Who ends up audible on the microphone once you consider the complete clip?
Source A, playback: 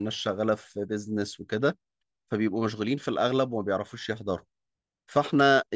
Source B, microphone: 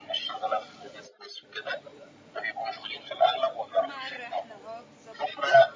both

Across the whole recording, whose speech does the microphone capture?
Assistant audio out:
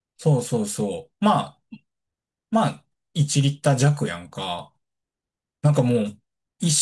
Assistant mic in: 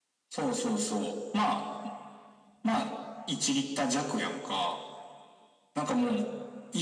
echo only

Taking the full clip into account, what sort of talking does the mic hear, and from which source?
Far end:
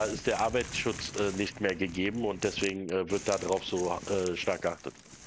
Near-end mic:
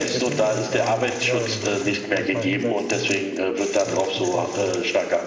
both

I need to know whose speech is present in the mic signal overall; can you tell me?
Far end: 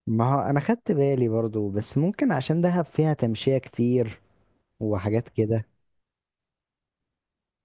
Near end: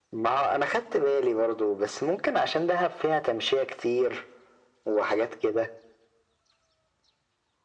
echo only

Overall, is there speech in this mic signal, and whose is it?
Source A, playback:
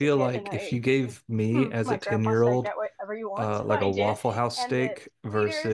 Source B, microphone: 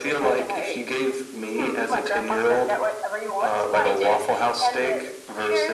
echo only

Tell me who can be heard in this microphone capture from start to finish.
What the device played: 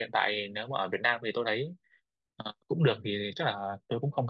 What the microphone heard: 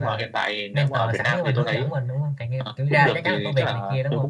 both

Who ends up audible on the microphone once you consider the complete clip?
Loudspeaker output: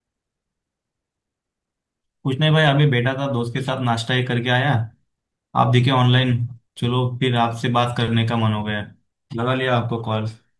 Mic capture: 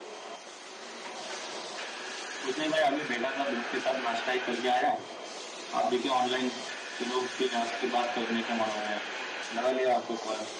echo only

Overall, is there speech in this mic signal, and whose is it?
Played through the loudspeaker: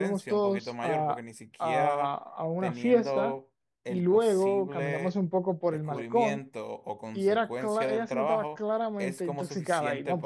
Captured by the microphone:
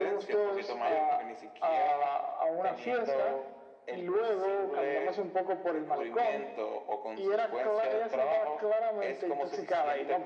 echo only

